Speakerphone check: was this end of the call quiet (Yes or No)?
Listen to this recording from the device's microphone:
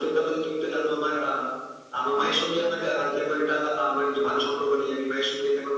No